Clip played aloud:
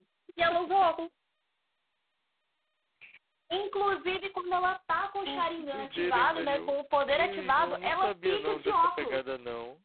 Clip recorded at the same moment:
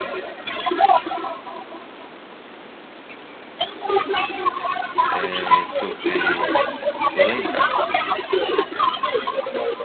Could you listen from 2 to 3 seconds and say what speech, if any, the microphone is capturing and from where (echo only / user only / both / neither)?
neither